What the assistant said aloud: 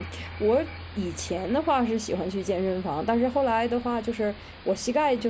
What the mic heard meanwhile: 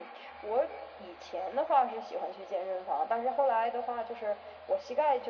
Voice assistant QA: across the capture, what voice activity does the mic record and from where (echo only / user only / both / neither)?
echo only